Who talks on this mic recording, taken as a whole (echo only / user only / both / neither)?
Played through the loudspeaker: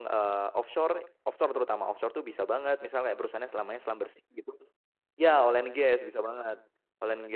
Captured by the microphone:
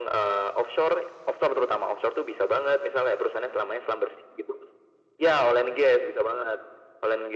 echo only